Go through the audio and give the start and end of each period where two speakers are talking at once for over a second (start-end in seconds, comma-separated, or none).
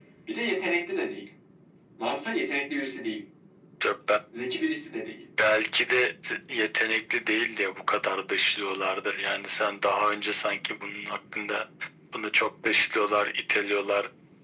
none